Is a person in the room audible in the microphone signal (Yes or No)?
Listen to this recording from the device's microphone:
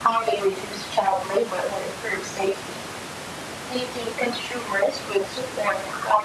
No